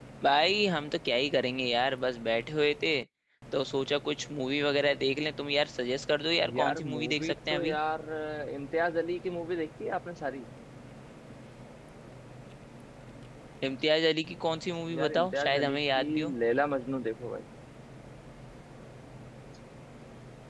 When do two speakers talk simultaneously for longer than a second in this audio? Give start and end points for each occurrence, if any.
6.5-7.8, 15.0-16.3

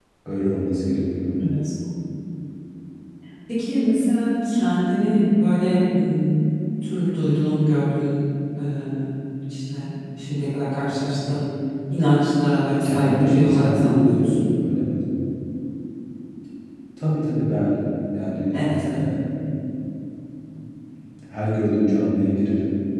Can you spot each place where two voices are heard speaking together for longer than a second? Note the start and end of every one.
12.8-14.4

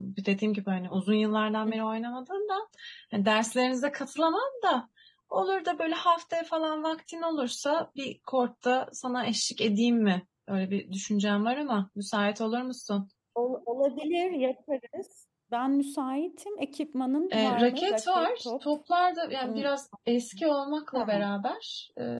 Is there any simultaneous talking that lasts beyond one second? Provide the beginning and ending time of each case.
17.3-18.6

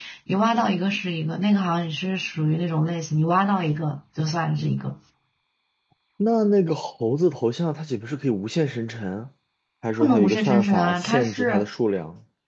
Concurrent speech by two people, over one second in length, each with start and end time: 10.0-11.7

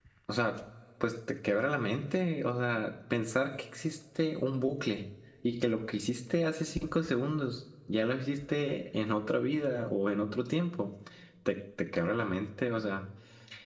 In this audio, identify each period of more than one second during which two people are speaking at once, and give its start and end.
none

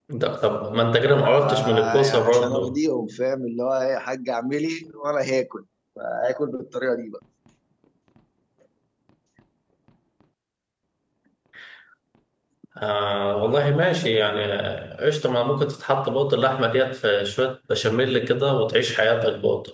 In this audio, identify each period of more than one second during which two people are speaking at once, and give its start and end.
1.4-2.8

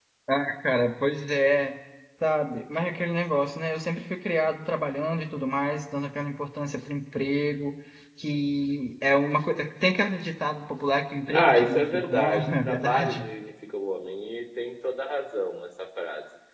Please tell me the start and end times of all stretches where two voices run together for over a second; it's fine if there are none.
11.3-13.3

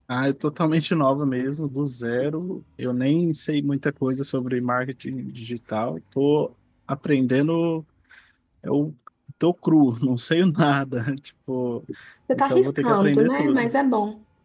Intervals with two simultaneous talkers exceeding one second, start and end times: 12.3-13.7

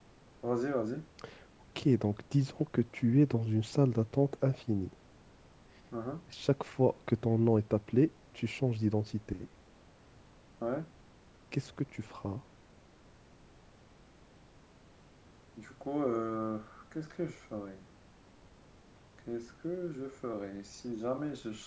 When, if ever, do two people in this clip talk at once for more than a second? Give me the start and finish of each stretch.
none

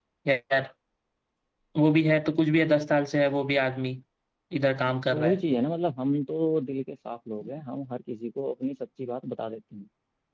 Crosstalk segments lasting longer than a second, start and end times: none

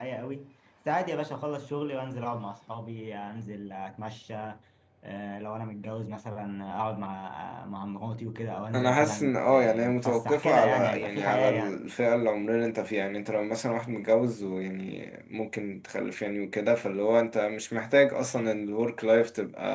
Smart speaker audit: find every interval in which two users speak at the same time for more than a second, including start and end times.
8.7-11.8

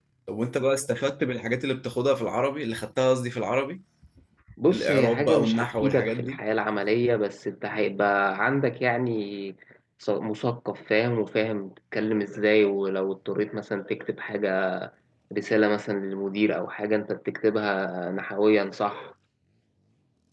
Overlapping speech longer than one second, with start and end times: 4.7-6.4

